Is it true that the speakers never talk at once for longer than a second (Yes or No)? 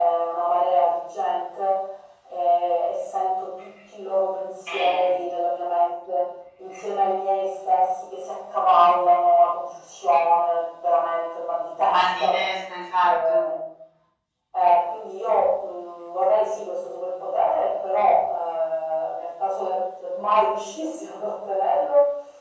Yes